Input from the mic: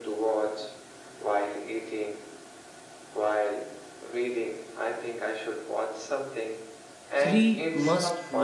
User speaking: Yes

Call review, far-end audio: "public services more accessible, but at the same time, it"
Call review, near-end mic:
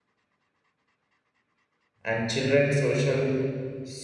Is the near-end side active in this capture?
Yes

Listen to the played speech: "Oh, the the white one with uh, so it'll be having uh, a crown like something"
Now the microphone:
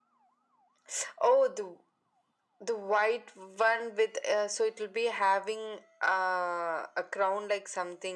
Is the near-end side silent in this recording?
Yes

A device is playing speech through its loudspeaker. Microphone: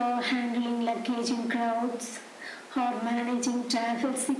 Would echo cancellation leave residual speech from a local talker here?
No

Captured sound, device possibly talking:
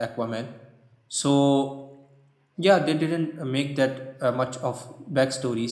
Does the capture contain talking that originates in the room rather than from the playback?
Yes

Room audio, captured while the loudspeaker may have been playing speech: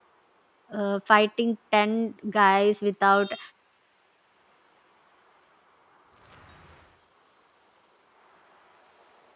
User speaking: Yes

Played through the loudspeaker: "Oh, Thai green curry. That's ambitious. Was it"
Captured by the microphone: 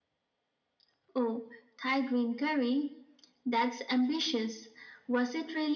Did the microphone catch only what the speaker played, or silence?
Yes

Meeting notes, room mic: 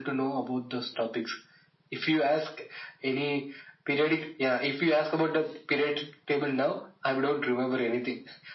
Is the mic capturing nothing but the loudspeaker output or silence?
Yes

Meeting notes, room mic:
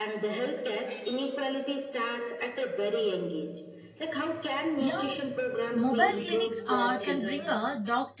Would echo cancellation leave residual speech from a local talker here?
Yes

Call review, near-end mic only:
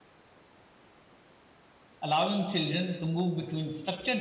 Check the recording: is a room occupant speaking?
Yes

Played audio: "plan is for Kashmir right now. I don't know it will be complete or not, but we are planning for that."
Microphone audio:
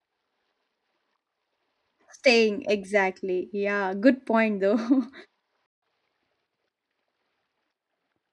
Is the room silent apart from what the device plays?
No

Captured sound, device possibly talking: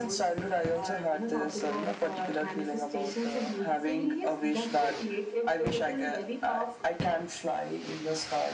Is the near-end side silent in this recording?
Yes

